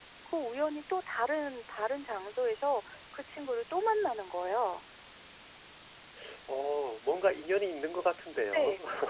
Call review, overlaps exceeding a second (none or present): none